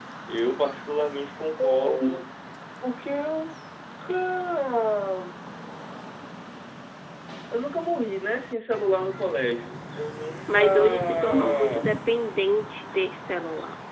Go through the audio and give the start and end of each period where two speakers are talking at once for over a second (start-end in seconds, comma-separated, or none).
10.5-11.9